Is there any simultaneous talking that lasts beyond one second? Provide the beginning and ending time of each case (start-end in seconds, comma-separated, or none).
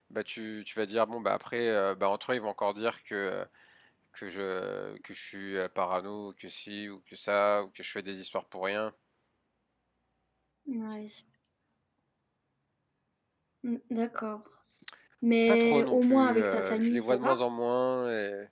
15.5-17.4